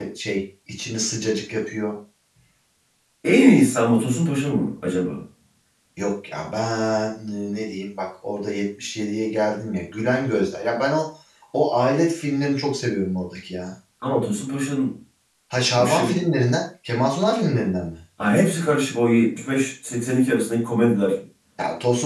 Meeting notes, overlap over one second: none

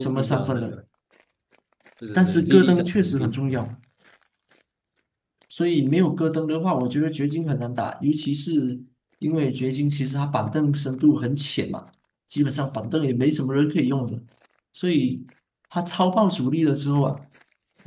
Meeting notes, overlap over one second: present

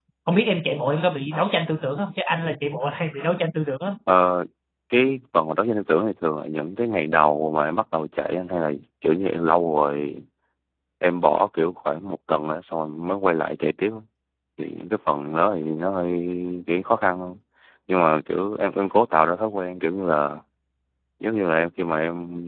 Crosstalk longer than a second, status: none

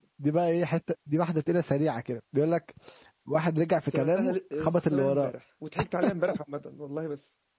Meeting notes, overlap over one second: present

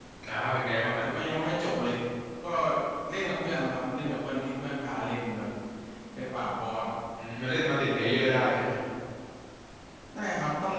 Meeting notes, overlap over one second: none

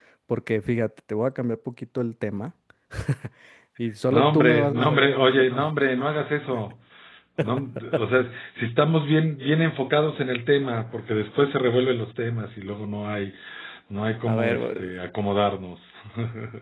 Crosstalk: present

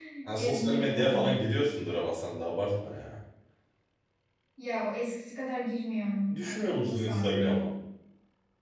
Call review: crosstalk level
present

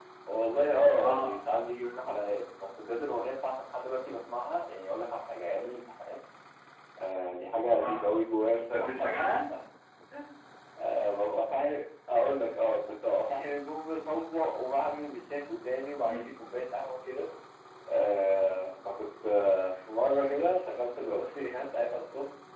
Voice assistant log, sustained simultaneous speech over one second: none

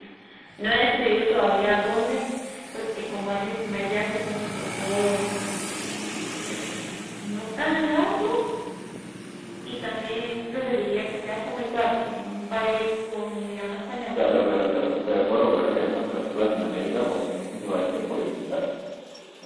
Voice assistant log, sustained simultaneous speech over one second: none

